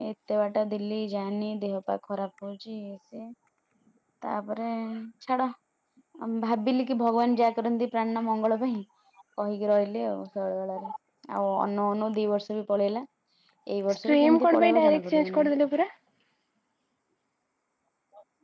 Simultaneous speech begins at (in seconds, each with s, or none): 14.1 s